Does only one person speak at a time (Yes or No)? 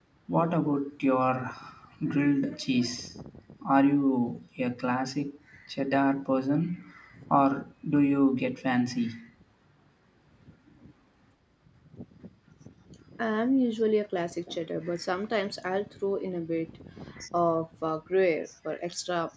Yes